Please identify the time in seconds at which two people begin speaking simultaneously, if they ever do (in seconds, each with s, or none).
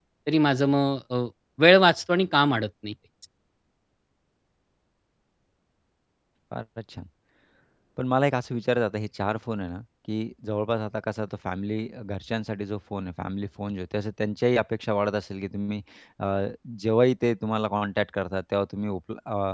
none